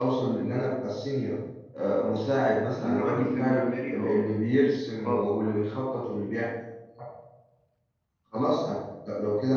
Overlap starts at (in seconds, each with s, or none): 2.7 s